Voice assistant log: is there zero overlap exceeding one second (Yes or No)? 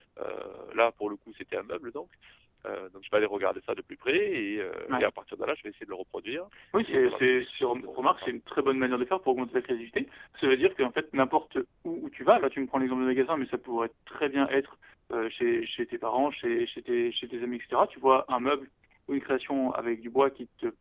No